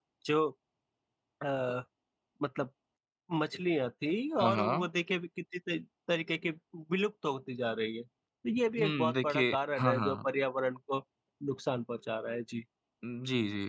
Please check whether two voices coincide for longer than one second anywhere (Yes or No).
Yes